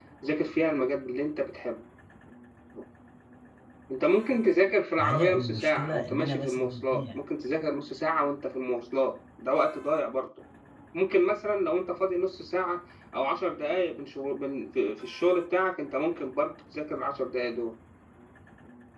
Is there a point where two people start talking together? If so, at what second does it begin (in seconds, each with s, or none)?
5.0 s